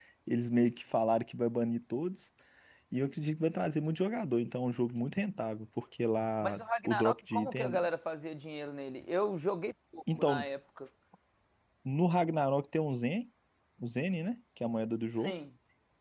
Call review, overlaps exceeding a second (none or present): present